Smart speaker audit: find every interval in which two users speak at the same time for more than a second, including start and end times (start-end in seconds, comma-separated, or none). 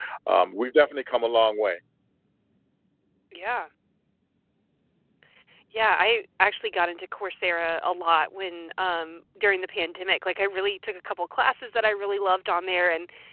none